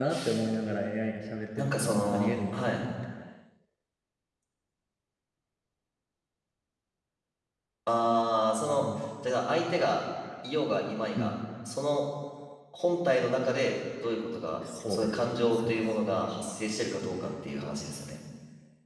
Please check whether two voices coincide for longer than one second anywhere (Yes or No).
Yes